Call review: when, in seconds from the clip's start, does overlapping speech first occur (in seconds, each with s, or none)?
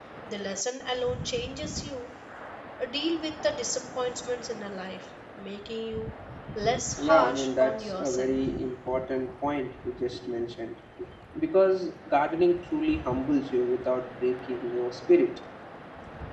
7.0 s